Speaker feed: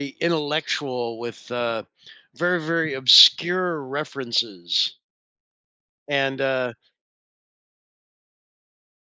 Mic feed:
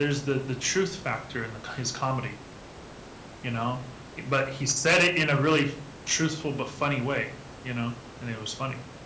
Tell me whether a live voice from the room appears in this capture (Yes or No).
Yes